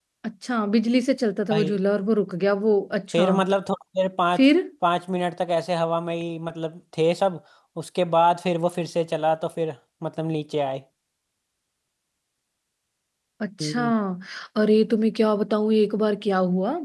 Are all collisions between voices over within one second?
Yes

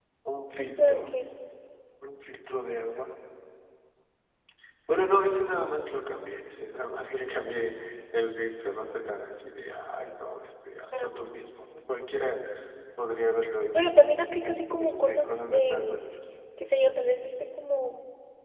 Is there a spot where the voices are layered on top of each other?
Yes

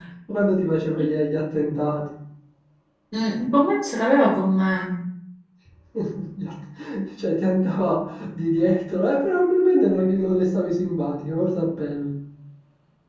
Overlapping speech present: No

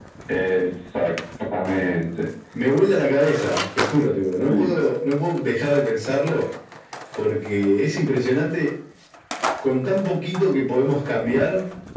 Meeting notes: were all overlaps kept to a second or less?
Yes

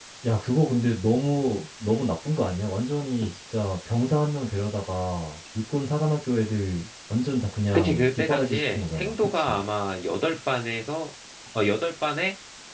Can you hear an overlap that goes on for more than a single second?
Yes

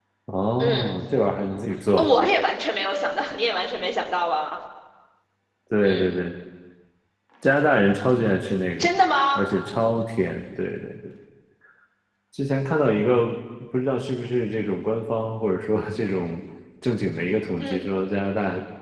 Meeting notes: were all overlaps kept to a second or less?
Yes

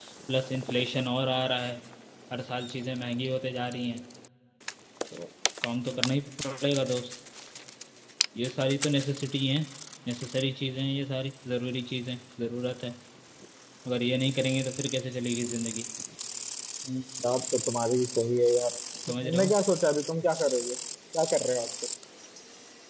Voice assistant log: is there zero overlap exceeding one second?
Yes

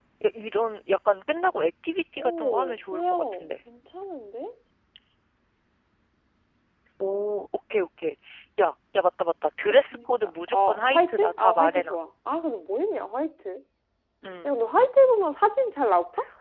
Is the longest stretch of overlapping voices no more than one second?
No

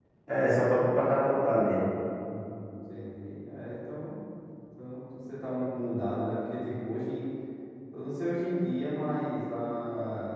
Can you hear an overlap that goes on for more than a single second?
No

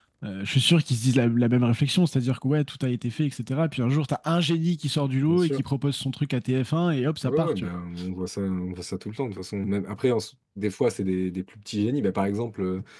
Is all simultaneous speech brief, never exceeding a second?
Yes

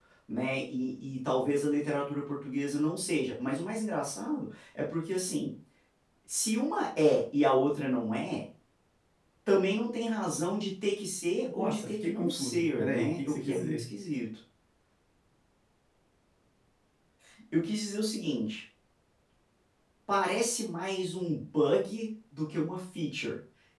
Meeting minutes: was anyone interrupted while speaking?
Yes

